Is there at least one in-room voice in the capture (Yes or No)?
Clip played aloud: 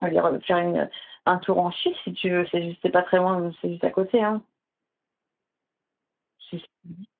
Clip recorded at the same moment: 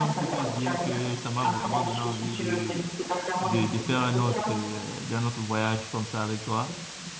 Yes